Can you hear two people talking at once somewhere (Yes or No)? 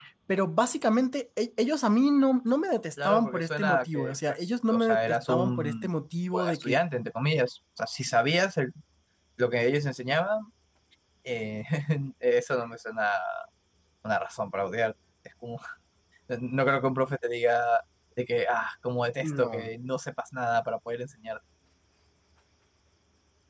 Yes